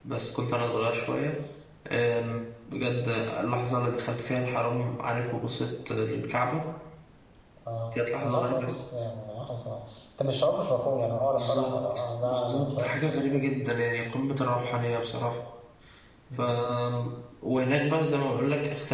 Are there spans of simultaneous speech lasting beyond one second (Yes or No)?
Yes